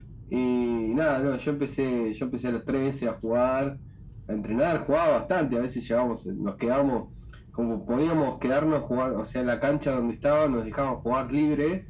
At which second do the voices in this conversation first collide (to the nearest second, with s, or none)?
none